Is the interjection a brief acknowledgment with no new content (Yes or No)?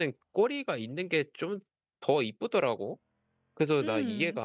Yes